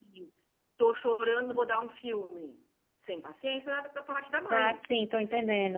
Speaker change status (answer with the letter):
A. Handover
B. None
A